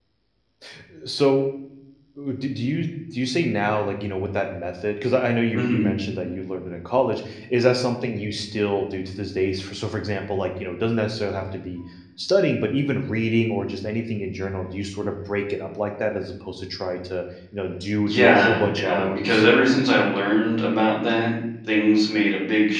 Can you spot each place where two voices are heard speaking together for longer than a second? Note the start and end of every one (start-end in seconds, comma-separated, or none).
18.1-19.4